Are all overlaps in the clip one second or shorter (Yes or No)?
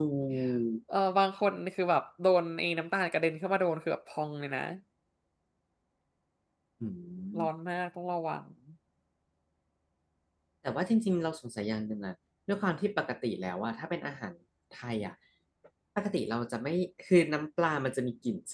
Yes